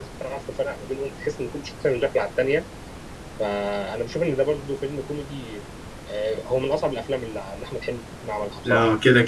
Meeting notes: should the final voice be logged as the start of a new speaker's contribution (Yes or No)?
Yes